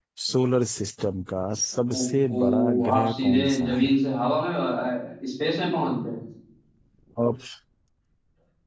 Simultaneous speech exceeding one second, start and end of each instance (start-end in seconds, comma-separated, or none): 1.9-3.7